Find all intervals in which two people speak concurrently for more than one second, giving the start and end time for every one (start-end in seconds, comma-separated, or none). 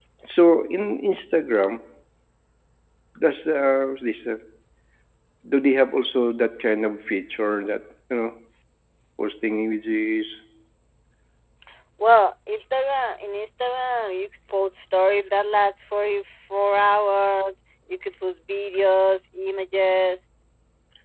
none